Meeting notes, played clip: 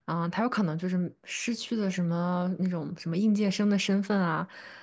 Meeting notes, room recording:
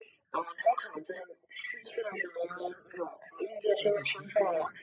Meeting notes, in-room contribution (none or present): present